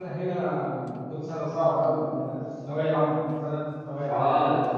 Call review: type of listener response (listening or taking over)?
taking over